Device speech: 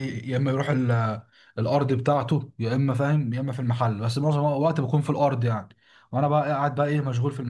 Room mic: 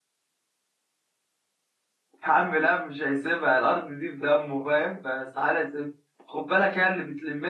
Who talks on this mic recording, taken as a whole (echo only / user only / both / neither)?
user only